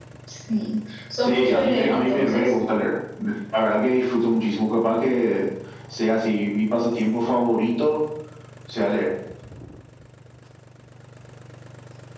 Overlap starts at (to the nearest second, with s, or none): 1 s